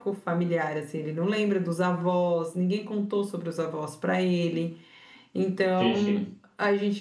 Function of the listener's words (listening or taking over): listening